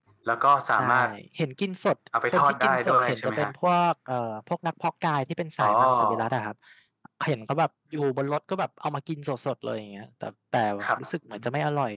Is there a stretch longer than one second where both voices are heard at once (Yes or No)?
Yes